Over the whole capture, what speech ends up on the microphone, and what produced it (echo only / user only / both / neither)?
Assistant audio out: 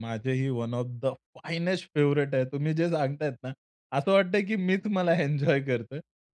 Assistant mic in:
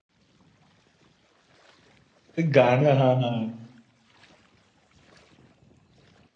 user only